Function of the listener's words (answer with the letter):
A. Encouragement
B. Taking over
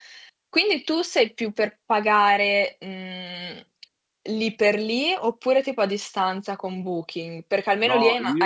B